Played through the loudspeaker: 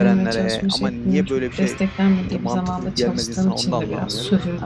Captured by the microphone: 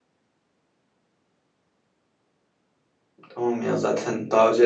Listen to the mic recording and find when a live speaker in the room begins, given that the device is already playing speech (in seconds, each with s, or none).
3.3 s